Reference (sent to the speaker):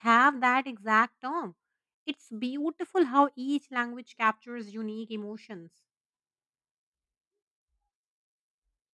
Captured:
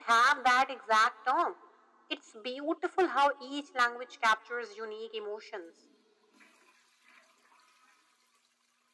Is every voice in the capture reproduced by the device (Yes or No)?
Yes